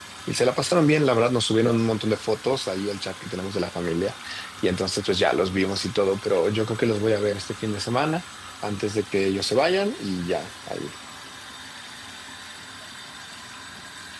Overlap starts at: none

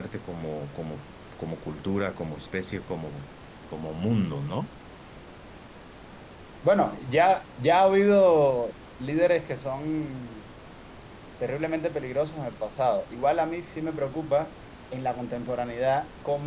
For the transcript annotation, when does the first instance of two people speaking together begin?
none

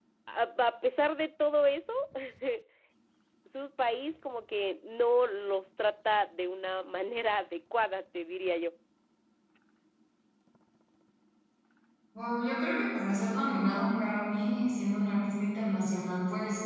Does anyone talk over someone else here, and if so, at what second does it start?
none

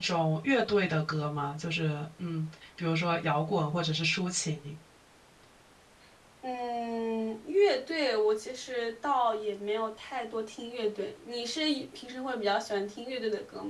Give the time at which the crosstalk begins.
none

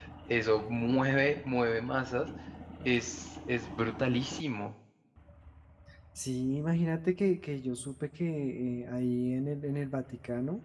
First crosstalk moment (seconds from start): none

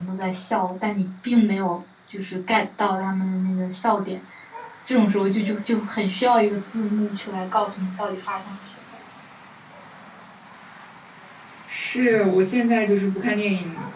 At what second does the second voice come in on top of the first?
none

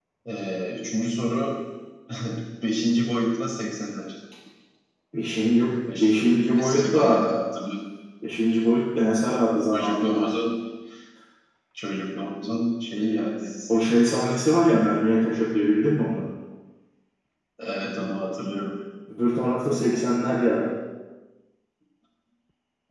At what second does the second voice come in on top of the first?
6 s

